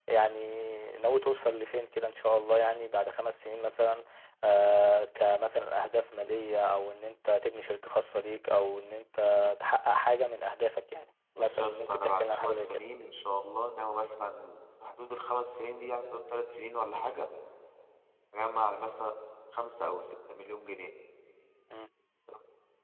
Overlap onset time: 11.4 s

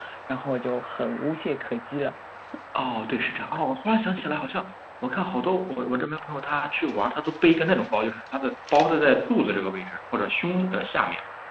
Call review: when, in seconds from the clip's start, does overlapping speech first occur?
none

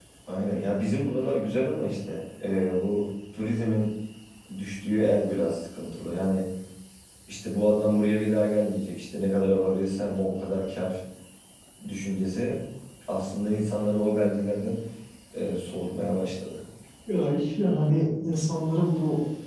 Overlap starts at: none

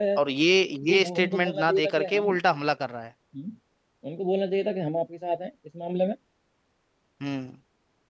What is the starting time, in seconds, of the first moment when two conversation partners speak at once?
0.9 s

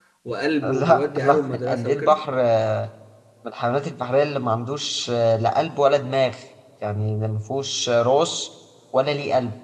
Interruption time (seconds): 0.6 s

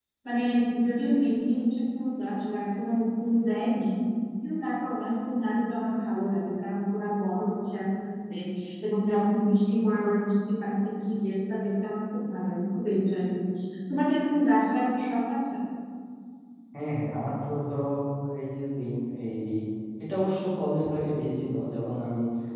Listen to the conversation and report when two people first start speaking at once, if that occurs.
none

